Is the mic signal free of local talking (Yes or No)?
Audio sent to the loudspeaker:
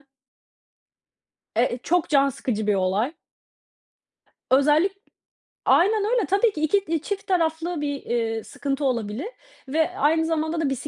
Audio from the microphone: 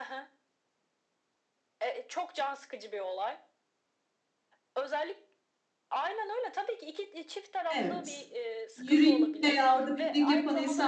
No